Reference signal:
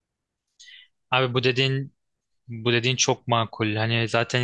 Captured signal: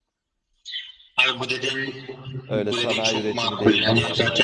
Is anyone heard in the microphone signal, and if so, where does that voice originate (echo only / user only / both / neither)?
both